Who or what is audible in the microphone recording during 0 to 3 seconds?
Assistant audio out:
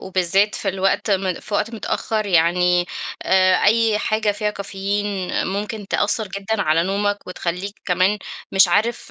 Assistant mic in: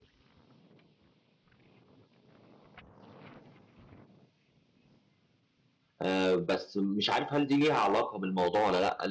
neither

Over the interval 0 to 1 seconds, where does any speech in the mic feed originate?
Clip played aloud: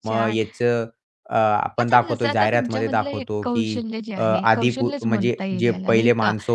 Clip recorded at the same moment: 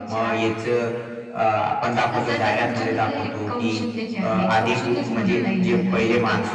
echo only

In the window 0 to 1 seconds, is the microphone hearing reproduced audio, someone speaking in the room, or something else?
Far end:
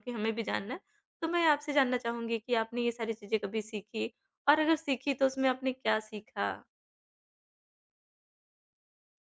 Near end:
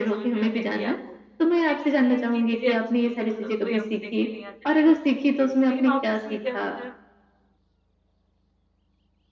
both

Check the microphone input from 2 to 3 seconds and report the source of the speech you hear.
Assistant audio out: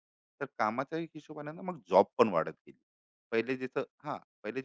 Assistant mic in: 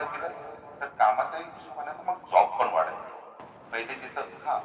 echo only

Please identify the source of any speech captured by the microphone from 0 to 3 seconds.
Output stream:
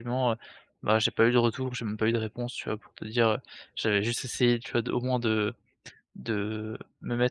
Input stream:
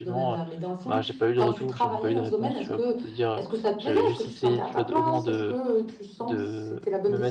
both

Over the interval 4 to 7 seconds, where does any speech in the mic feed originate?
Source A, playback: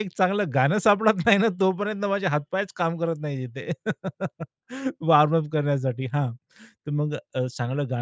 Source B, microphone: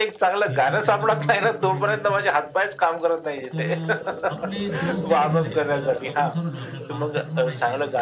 both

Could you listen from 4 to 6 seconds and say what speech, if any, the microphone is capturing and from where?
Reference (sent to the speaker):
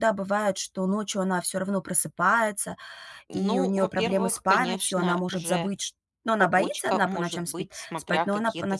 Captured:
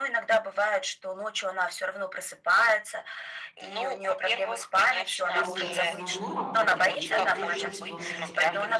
both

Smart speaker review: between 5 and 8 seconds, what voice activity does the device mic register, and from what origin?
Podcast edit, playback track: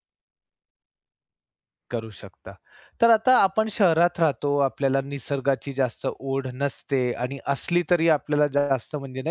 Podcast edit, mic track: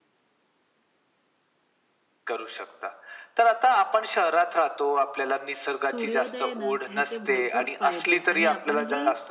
both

